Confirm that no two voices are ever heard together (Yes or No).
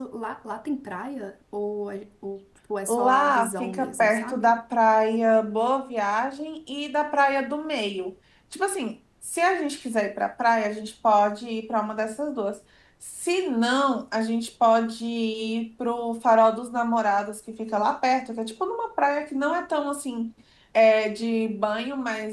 No